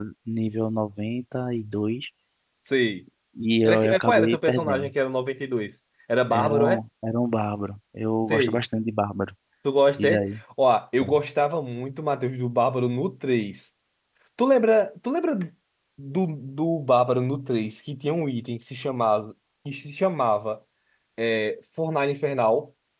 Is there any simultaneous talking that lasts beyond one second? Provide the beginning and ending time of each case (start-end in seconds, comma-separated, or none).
3.6-4.9